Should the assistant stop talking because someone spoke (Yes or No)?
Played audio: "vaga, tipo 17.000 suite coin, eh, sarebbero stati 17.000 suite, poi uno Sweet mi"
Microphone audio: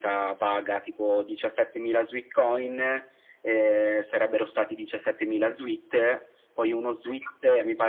No